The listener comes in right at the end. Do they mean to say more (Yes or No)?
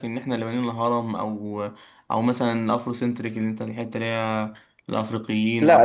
Yes